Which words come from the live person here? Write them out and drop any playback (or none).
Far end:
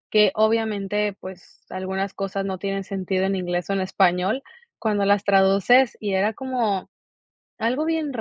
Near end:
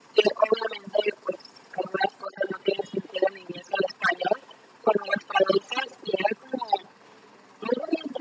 none